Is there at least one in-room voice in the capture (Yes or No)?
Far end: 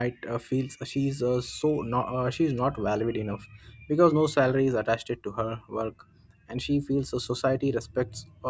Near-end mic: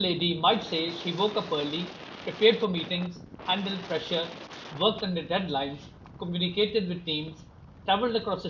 Yes